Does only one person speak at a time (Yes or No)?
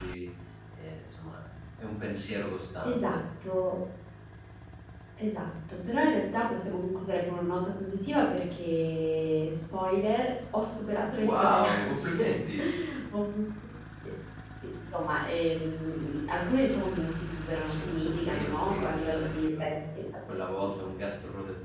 No